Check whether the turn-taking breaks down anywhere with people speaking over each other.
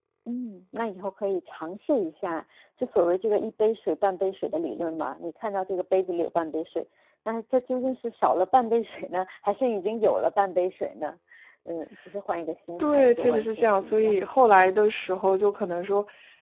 Yes, from 12.8 s

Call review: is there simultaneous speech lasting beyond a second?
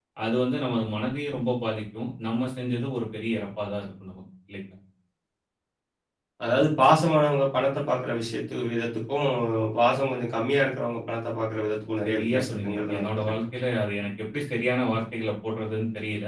Yes, from 12.0 s

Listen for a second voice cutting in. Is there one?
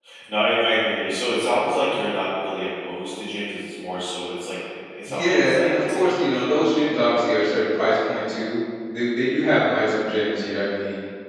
Yes, from 5.1 s

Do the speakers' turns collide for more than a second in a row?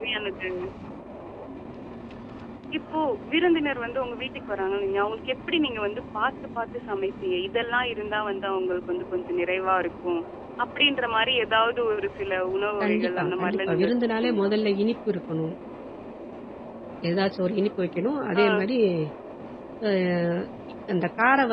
Yes, from 12.8 s

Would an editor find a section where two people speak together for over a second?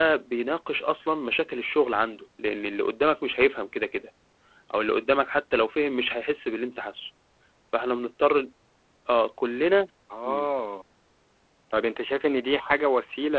No

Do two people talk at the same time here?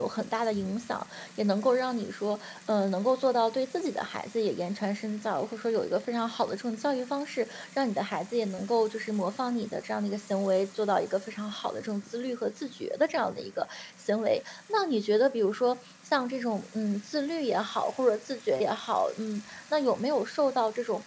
No

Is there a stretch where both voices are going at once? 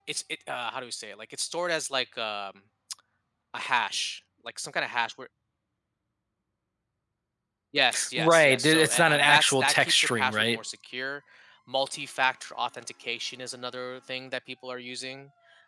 Yes, from 8.2 s

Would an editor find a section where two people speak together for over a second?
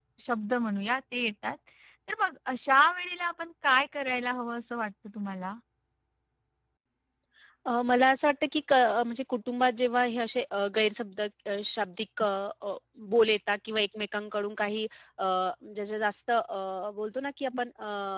No

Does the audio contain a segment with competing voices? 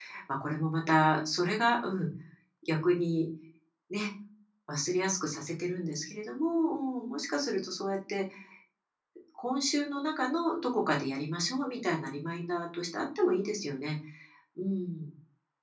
No

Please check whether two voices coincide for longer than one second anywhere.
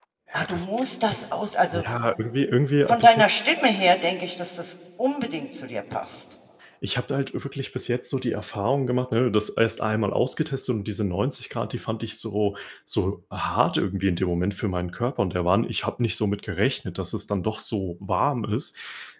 No

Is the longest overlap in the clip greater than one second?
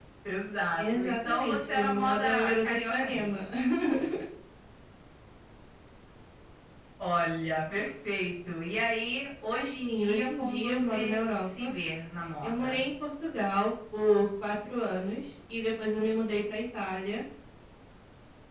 Yes, from 0.8 s

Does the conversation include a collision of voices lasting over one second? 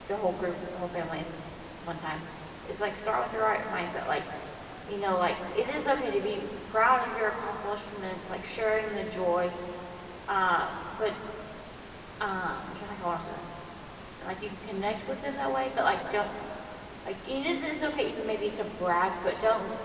No

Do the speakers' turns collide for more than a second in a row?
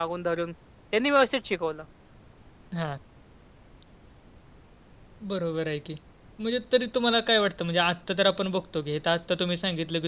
No

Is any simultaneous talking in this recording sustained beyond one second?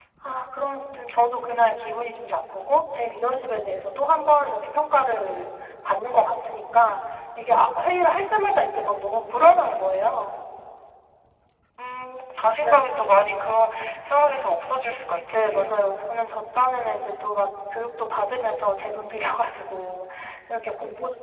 No

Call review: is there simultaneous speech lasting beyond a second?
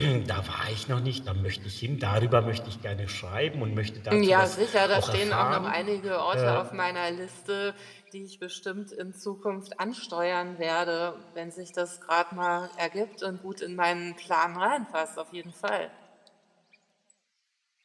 Yes, from 4.1 s

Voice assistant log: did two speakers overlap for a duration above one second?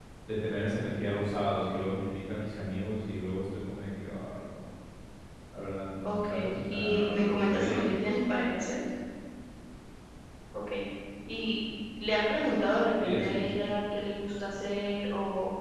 Yes, from 6.0 s

